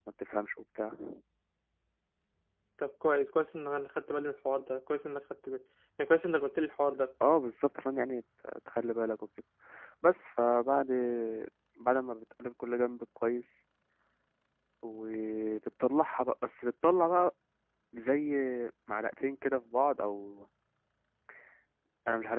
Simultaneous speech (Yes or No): No